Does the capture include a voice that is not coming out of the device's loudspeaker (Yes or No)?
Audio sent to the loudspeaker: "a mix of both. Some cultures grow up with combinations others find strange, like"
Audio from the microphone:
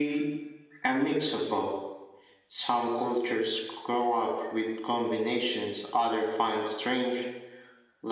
No